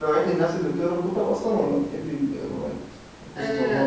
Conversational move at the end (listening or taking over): taking over